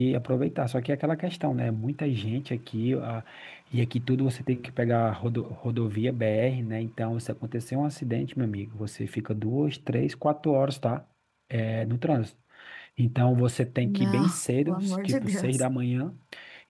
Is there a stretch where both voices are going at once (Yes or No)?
Yes